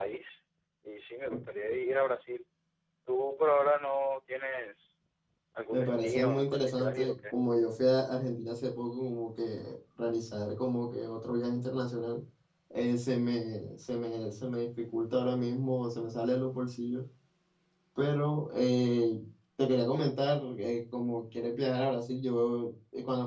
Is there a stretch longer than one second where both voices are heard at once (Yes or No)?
Yes